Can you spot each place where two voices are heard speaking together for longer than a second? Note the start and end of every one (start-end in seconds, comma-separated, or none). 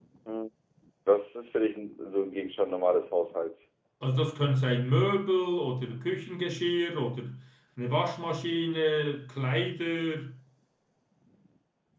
none